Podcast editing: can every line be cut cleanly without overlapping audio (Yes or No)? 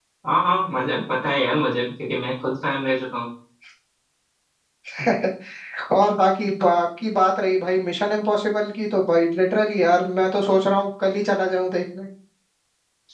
Yes